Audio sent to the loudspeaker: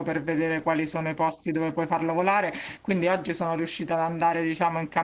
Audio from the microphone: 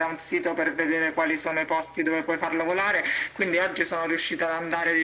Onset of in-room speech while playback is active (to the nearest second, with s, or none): none